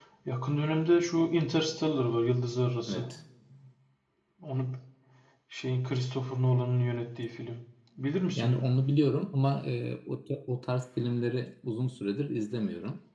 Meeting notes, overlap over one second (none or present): none